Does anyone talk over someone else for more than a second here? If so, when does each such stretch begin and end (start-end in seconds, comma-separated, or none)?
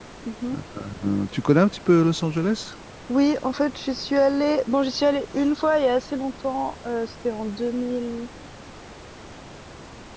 none